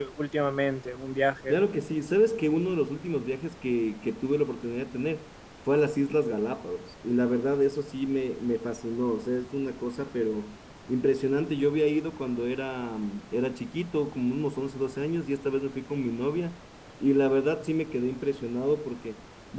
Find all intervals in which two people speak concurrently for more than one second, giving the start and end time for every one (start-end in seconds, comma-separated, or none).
none